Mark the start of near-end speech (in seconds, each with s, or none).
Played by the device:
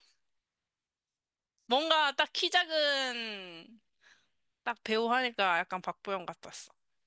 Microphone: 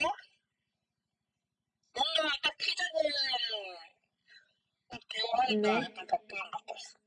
5.5 s